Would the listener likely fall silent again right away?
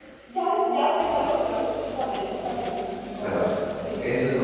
No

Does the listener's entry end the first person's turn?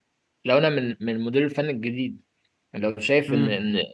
No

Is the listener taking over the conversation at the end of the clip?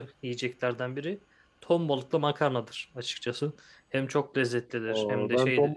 Yes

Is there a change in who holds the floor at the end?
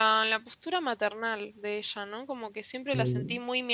No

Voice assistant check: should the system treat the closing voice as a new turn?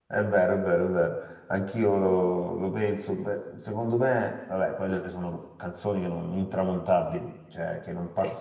No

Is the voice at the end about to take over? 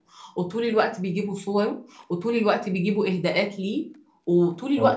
No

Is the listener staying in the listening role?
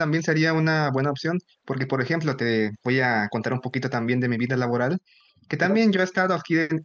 Yes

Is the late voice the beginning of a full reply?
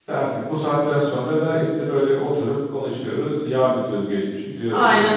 Yes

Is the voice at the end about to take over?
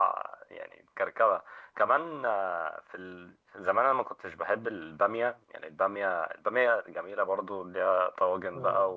No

